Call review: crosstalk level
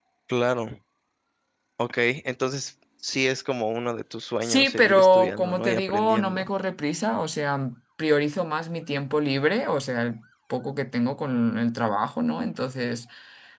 present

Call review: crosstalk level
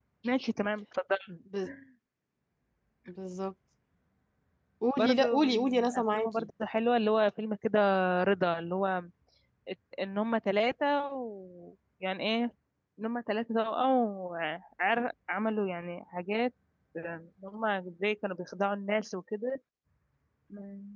present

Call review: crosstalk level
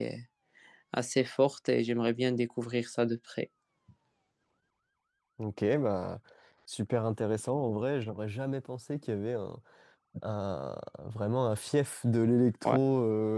none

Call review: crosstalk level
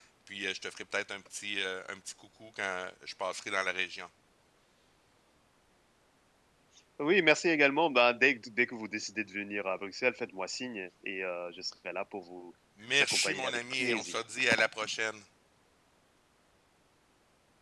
present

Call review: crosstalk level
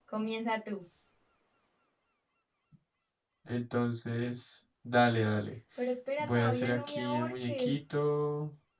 present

